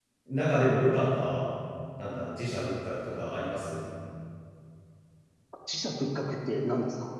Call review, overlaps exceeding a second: none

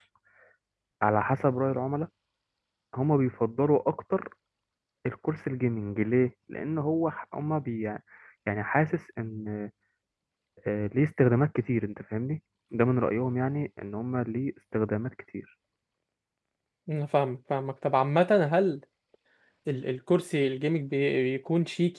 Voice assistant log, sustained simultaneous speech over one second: none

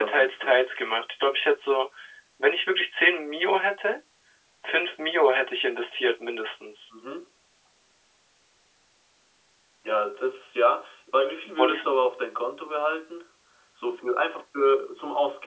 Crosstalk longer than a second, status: none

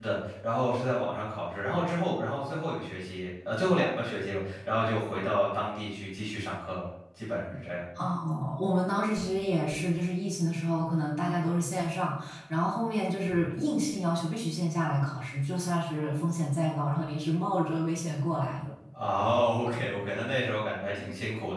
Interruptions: none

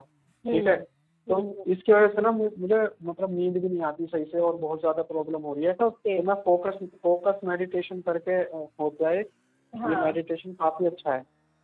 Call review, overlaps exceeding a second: none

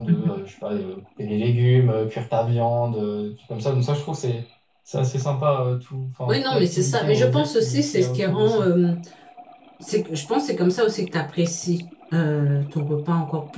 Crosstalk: present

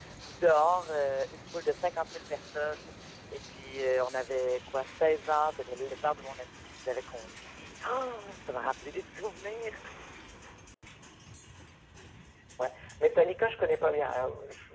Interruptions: none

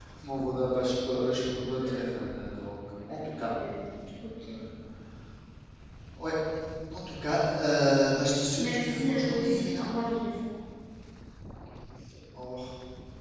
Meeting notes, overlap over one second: present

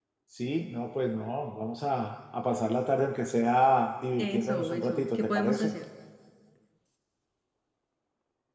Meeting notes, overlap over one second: present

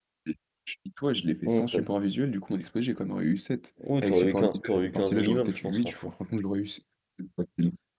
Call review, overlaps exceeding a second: present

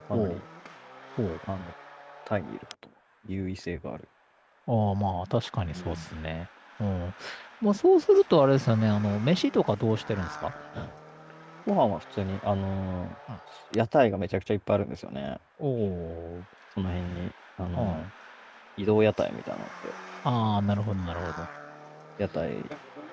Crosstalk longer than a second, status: none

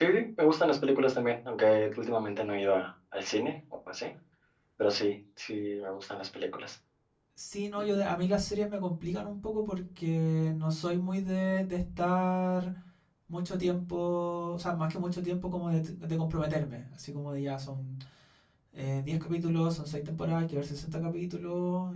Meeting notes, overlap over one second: none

